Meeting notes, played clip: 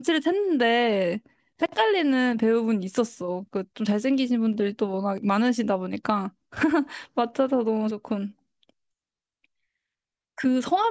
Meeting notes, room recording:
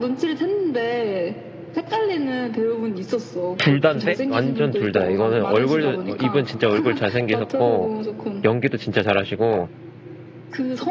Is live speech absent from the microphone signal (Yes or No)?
No